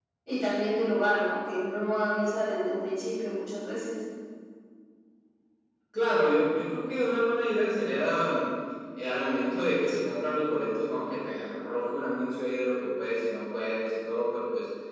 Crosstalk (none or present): none